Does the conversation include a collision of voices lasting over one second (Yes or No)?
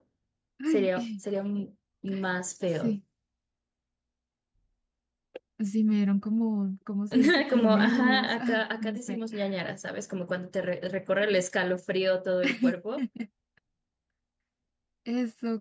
Yes